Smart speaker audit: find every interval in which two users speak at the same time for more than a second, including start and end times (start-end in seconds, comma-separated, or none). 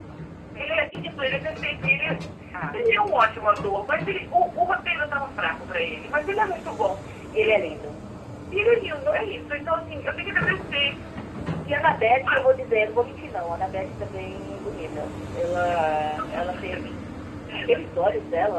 15.6-16.9